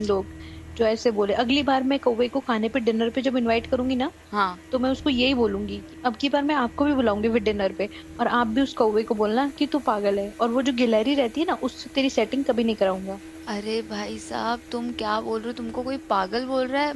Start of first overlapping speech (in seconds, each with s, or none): none